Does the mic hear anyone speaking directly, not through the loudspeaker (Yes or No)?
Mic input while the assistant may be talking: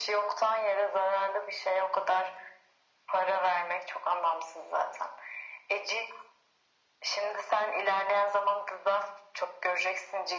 No